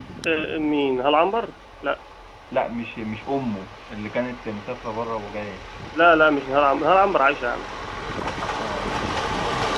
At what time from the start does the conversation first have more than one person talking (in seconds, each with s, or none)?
none